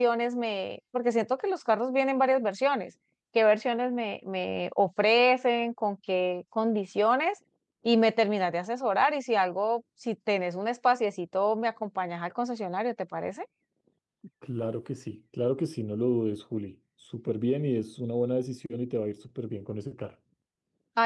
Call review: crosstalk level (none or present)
none